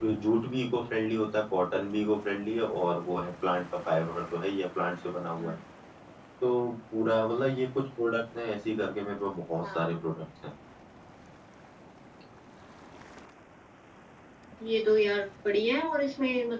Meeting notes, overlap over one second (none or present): none